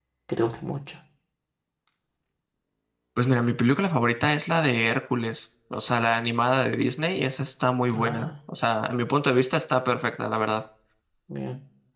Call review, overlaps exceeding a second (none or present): none